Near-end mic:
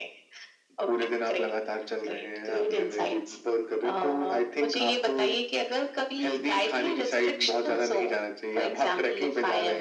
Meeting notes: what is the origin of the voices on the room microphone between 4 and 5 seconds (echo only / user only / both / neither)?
echo only